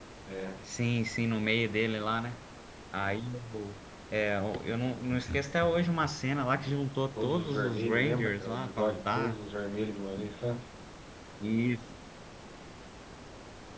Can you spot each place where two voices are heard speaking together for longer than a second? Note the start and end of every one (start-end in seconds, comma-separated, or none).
7.2-9.4